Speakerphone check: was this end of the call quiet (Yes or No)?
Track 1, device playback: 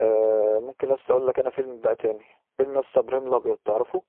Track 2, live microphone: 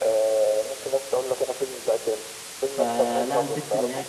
No